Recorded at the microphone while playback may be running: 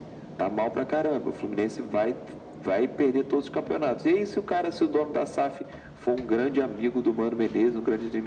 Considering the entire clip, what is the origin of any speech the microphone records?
echo only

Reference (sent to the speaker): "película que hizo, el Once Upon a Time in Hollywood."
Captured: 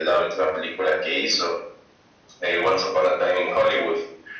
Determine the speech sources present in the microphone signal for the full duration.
echo only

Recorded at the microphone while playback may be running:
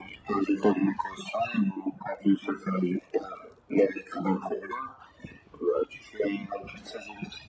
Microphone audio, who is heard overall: echo only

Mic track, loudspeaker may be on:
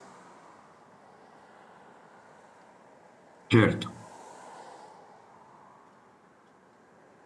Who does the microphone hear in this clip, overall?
user only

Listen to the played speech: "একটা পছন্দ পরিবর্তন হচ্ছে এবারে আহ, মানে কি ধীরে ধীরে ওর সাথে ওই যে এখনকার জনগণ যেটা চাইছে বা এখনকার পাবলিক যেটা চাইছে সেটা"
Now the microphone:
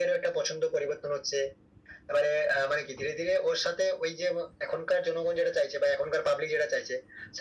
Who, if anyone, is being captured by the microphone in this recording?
echo only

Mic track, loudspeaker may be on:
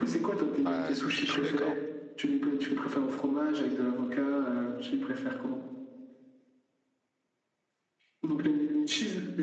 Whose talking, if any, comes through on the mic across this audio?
both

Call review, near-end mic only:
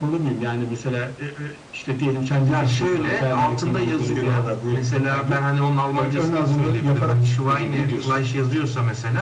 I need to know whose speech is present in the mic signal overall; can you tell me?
echo only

